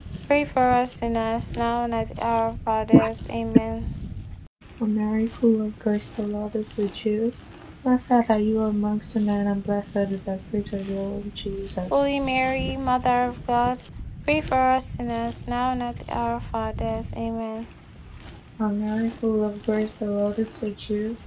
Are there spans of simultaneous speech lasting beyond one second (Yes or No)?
No